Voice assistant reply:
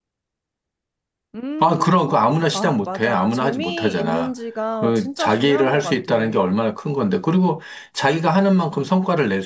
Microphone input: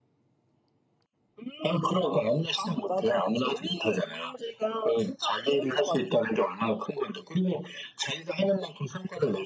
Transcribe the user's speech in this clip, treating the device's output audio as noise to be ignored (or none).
none